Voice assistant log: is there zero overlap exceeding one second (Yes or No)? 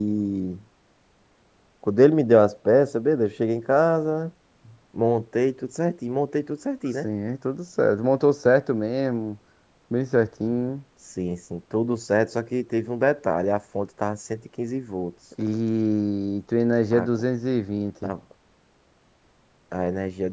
Yes